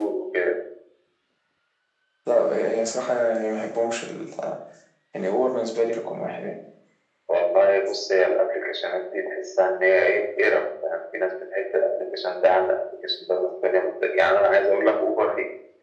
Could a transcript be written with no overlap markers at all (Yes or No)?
Yes